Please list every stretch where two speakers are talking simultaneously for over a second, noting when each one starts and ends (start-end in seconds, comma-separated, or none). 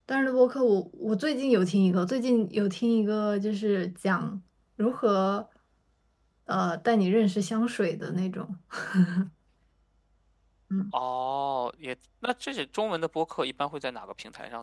none